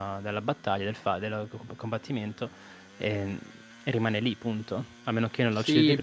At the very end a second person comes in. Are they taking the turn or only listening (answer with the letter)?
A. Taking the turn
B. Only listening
A